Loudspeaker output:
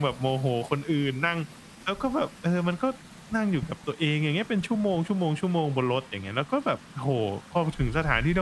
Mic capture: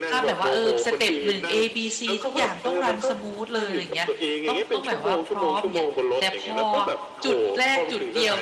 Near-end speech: present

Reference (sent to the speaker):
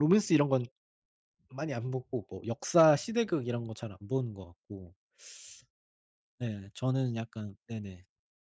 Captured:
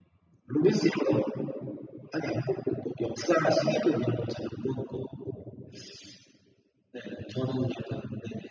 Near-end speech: none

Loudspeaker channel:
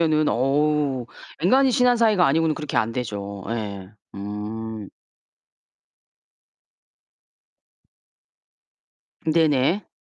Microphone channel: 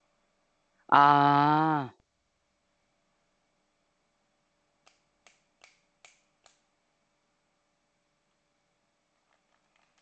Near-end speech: present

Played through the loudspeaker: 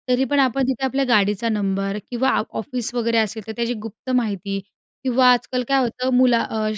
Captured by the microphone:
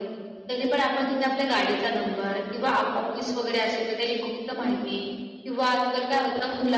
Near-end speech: none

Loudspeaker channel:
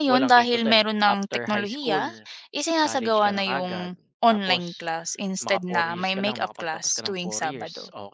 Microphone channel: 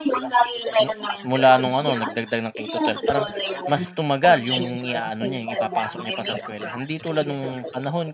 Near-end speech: present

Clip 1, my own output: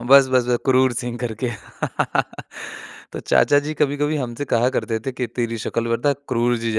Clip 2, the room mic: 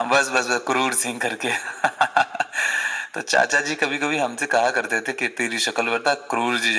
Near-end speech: none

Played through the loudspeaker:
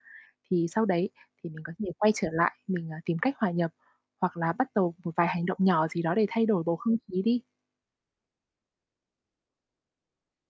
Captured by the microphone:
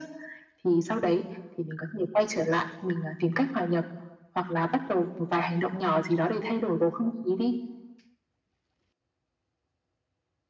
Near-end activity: none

